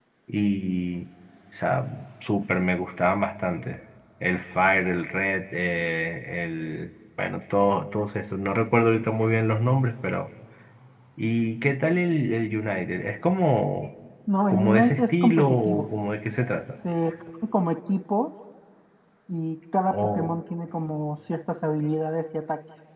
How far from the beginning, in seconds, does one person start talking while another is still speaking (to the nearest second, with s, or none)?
14 s